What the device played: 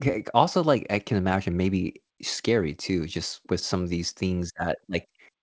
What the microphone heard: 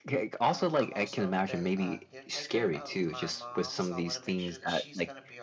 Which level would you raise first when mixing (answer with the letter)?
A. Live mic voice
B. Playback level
A